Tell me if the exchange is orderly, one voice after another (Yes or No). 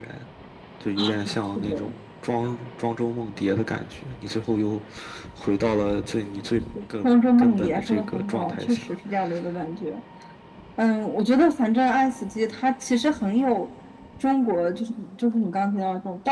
No